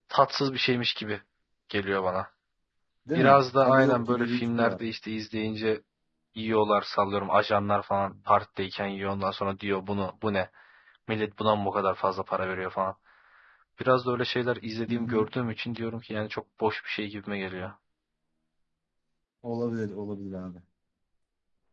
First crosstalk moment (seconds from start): 3.1 s

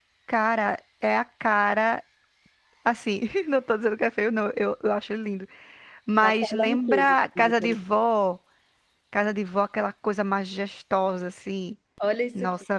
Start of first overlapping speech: 6.2 s

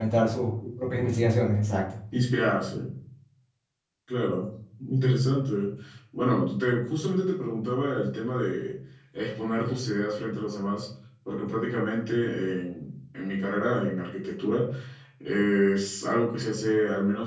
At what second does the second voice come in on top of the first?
none

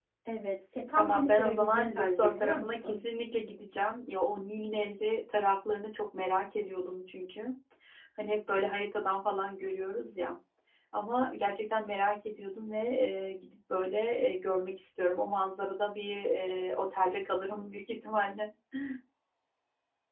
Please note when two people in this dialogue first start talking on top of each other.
1.0 s

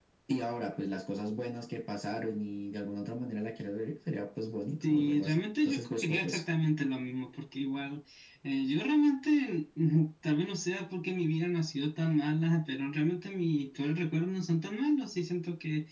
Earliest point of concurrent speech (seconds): 4.8 s

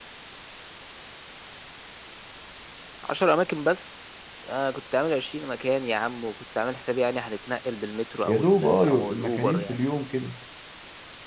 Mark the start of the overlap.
8.2 s

